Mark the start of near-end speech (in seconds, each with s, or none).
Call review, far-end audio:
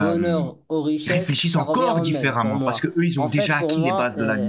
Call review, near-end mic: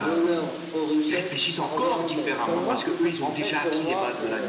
2.4 s